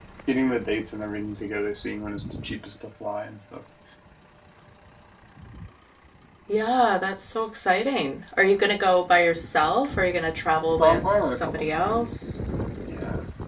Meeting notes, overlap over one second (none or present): present